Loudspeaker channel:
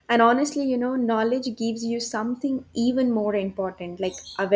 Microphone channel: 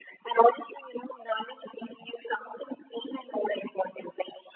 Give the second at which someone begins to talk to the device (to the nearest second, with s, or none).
none